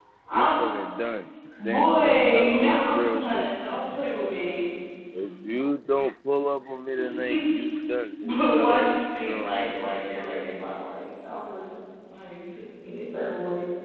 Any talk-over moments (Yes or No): Yes